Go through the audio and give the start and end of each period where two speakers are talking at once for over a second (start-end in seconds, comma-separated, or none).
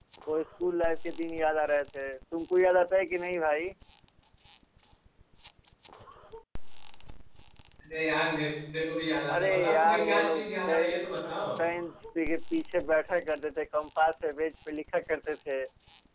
9.3-11.0